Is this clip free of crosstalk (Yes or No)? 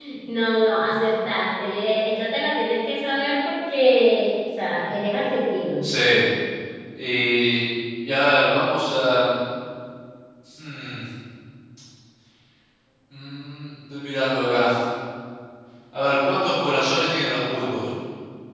Yes